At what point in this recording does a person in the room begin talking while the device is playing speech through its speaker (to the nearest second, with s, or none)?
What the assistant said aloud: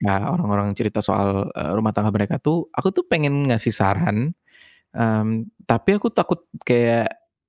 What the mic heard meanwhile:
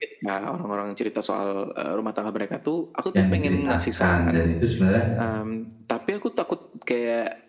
3 s